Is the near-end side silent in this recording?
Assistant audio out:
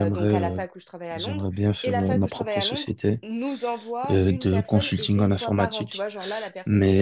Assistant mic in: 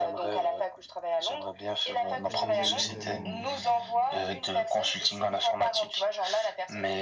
No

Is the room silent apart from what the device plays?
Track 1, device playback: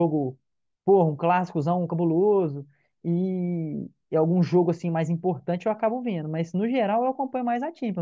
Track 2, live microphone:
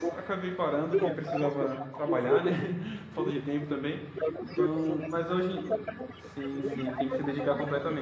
No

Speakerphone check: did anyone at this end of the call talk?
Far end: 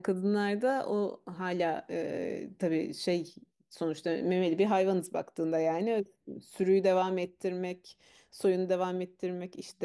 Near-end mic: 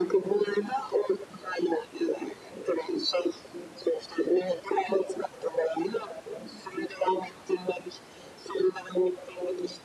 No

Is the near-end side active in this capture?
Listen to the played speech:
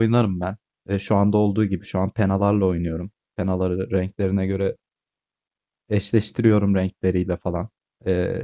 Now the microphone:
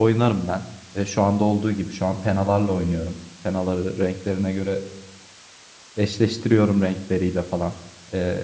No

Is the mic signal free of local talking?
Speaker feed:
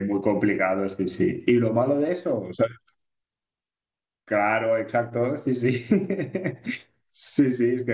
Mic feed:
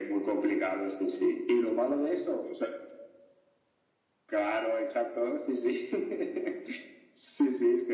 Yes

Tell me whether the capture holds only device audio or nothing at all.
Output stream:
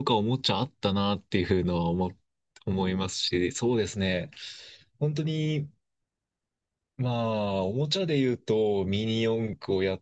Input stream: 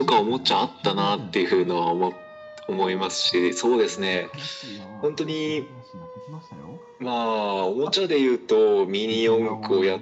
No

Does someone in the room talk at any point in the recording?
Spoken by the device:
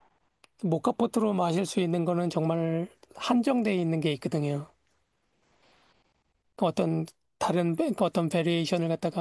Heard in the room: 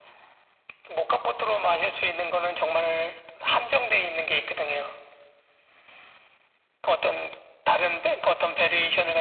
No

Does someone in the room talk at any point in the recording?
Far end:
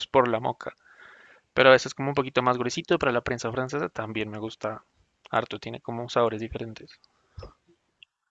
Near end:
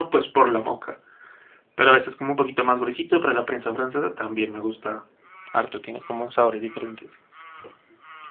No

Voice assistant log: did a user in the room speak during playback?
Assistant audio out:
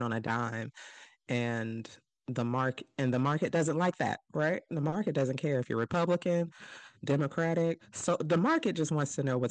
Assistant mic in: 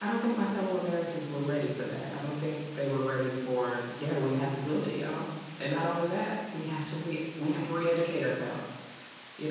Yes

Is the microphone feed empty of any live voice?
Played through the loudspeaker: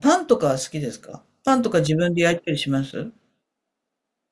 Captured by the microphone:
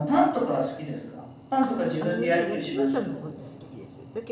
No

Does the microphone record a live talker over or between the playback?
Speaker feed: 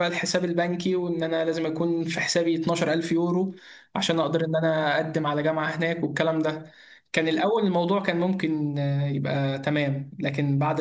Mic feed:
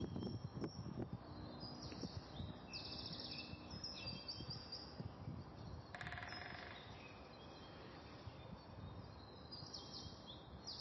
No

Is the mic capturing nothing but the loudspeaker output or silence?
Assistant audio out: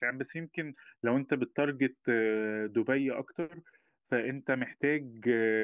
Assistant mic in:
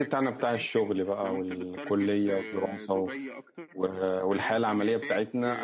No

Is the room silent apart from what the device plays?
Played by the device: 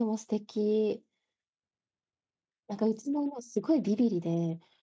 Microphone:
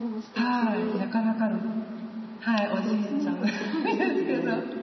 No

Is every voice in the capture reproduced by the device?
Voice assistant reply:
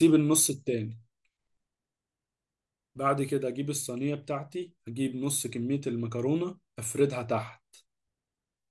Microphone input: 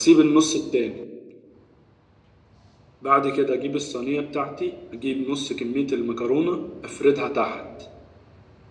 Yes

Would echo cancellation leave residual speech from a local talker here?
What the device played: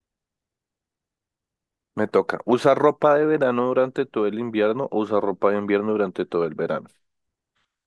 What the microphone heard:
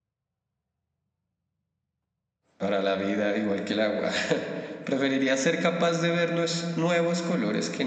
Yes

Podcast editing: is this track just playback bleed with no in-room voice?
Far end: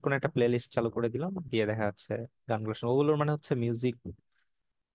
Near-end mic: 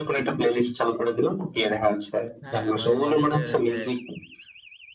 No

